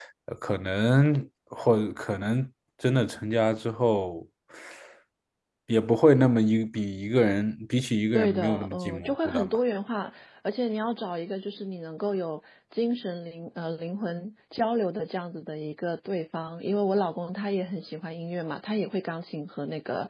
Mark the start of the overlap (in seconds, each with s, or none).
8.1 s